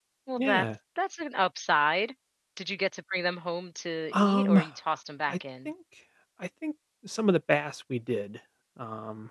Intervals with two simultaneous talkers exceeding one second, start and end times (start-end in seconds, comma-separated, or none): none